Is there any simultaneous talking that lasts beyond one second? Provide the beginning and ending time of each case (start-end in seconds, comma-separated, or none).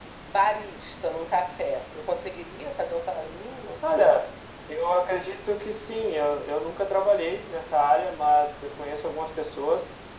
none